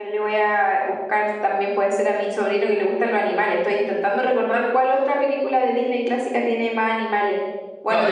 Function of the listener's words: taking over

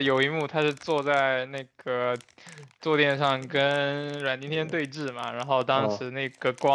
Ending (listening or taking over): listening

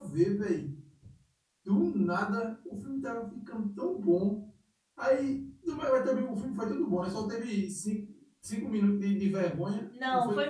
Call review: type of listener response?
taking over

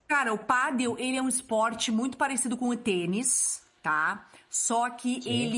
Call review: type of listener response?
listening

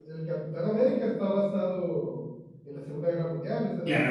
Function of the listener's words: taking over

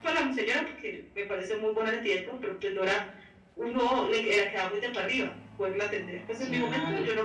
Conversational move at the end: listening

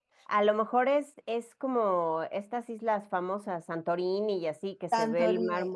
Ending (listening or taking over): taking over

